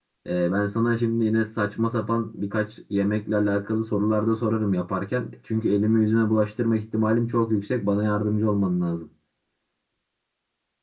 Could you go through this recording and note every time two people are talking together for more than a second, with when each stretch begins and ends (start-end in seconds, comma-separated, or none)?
none